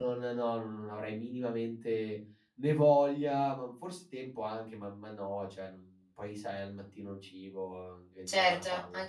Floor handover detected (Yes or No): Yes